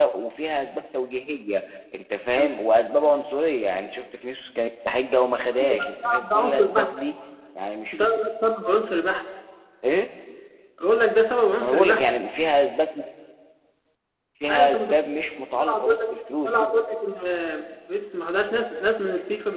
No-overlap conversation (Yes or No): No